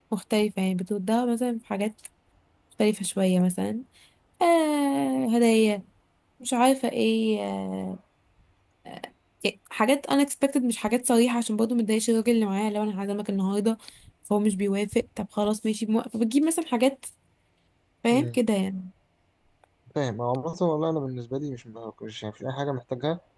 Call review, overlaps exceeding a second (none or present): none